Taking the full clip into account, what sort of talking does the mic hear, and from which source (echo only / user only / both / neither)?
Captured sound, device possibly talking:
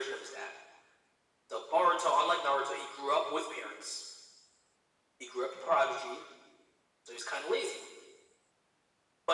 echo only